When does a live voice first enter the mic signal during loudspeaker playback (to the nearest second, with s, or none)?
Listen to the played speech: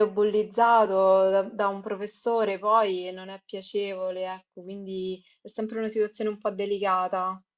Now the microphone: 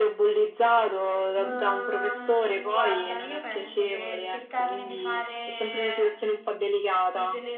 1 s